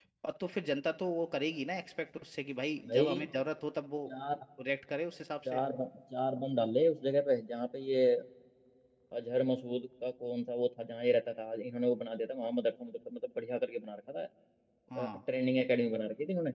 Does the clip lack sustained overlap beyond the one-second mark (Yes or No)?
Yes